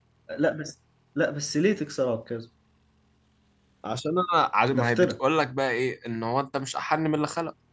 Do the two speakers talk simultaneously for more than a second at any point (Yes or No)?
No